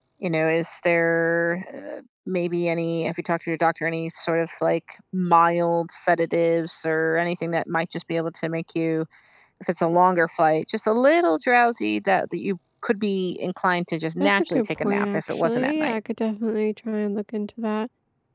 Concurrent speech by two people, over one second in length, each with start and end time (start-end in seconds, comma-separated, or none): 14.2-16.0